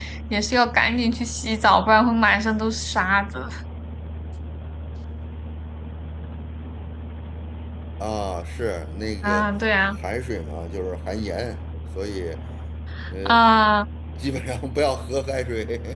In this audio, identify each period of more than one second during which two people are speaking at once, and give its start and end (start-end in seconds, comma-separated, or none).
none